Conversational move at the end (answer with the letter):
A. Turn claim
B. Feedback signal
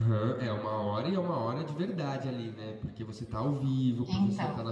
B